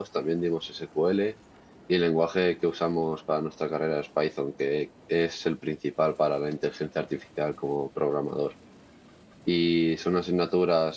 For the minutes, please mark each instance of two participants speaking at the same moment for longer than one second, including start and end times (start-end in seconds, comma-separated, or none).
none